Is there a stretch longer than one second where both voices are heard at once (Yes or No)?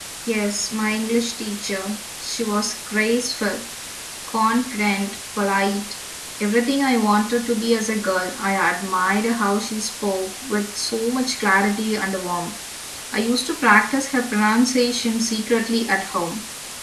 No